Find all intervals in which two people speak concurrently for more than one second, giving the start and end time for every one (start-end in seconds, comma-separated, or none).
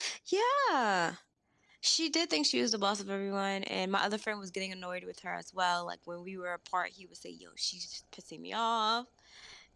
none